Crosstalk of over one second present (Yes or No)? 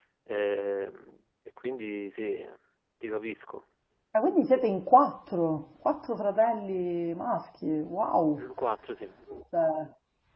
No